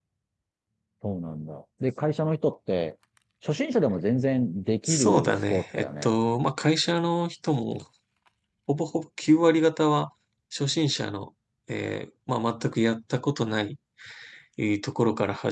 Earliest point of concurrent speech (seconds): 5 s

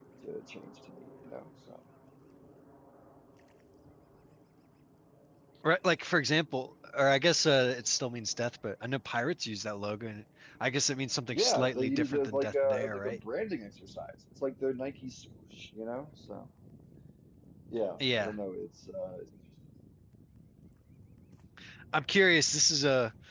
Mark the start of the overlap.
11 s

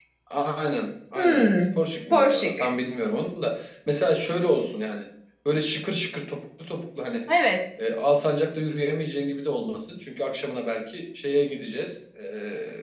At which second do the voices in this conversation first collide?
1 s

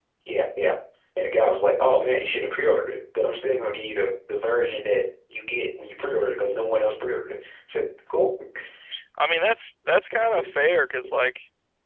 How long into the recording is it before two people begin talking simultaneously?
none

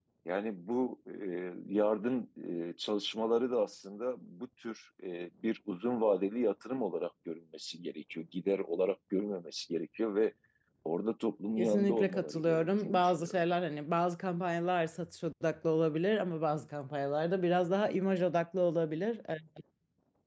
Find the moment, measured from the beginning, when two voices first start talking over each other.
12 s

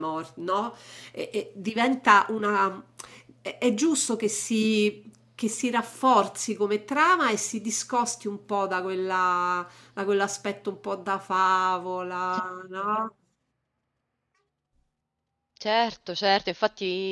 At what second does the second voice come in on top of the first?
none

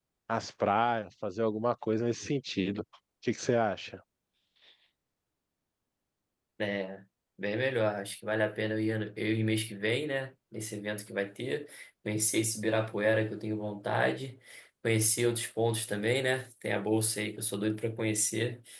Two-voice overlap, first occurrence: none

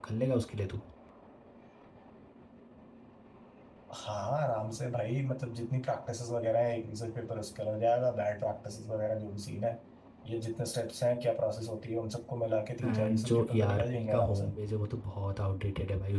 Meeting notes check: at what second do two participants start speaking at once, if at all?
13 s

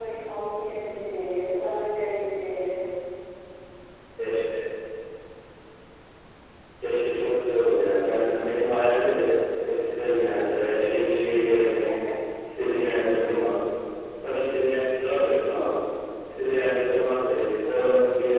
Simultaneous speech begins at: none

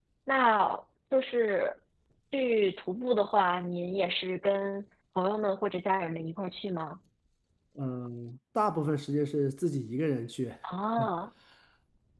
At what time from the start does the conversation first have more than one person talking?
none

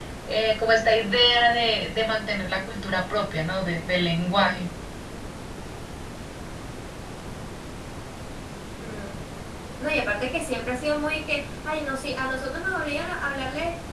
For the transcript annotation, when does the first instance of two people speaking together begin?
none

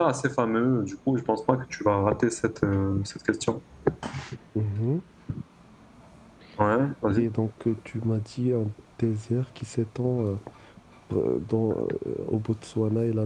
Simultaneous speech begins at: none

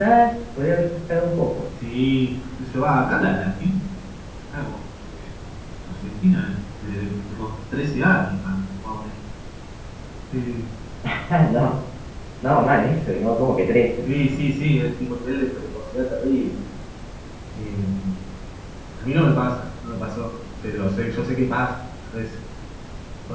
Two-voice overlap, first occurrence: none

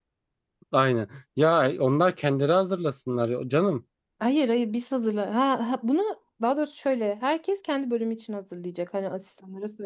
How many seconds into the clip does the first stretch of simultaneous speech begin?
none

